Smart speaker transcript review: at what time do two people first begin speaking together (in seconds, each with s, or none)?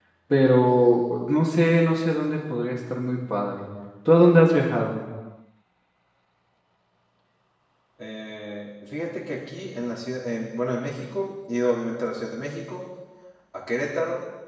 none